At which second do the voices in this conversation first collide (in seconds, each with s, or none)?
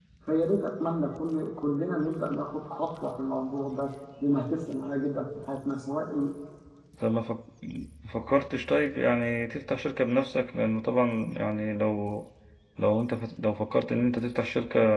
none